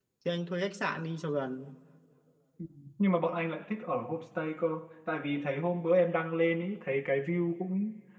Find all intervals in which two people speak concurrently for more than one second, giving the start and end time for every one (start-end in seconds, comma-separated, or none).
none